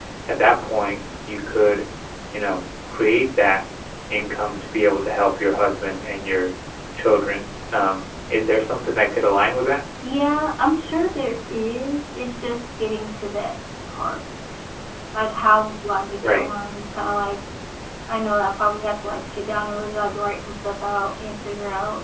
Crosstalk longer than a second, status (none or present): none